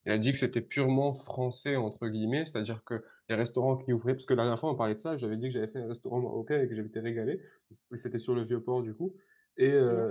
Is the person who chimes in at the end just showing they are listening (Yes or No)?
Yes